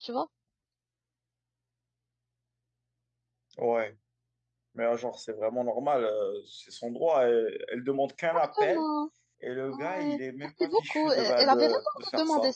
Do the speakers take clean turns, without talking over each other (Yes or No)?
No